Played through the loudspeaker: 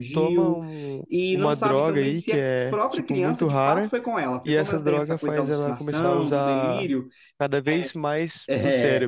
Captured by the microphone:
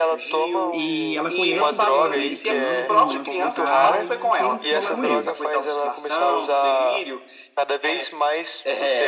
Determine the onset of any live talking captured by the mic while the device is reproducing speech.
1 s

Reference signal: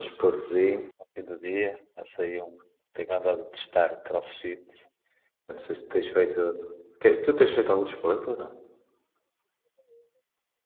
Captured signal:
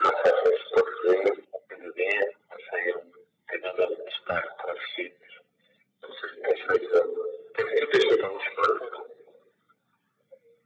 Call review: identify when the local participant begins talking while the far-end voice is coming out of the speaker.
none

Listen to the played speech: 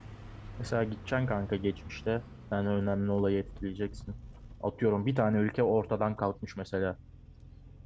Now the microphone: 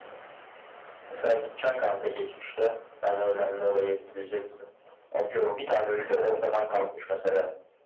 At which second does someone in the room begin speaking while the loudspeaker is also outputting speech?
none

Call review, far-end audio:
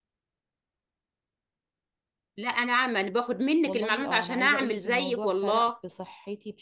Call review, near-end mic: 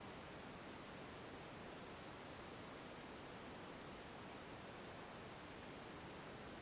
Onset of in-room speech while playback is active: none

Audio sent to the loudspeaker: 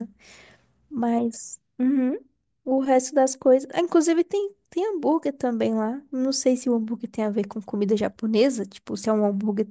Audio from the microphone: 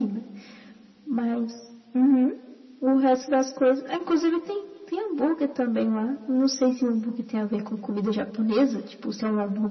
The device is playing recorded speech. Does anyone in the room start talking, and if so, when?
none

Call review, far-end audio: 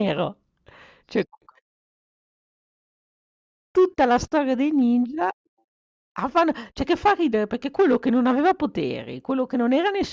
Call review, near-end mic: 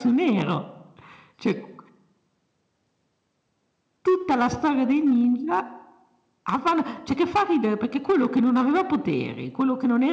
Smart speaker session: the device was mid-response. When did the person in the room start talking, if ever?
none

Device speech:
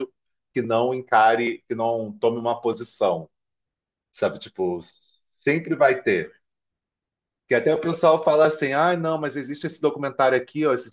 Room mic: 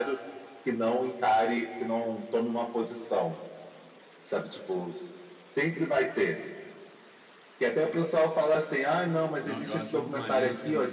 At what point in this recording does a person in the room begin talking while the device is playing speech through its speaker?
9 s

